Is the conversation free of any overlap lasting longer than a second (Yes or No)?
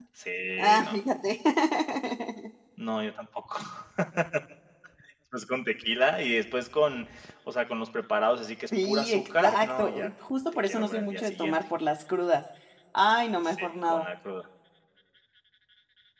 No